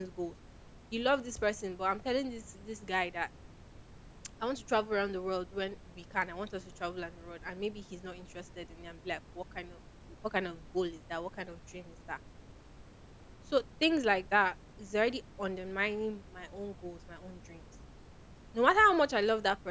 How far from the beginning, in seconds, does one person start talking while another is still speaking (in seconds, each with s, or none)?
none